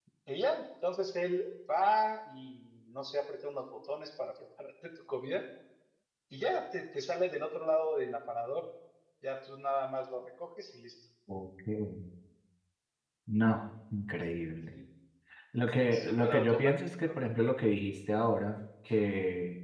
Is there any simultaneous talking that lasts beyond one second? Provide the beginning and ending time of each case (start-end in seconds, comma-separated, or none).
15.9-17.2